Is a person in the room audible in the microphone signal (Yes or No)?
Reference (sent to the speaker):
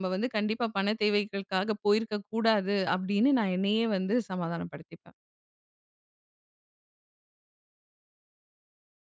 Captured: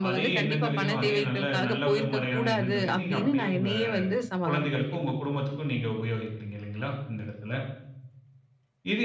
Yes